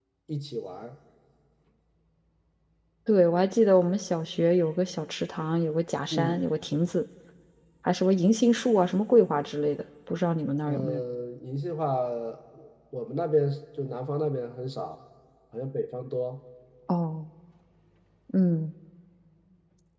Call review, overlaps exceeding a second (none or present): none